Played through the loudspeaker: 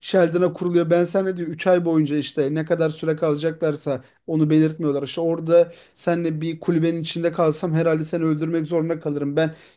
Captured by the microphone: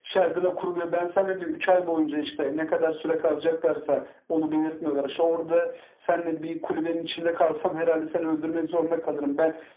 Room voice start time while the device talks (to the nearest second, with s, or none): none